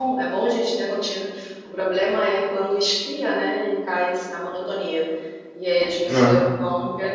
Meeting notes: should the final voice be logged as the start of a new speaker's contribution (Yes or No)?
No